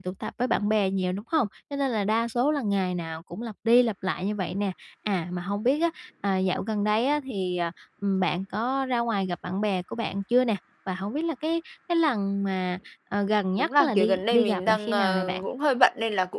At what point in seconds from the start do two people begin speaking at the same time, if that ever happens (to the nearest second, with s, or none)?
14 s